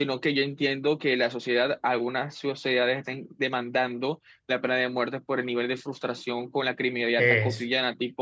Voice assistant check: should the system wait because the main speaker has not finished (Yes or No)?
Yes